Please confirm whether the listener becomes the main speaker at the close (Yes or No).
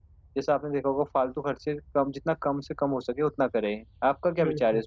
Yes